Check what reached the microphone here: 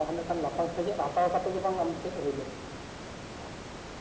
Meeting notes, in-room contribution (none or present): none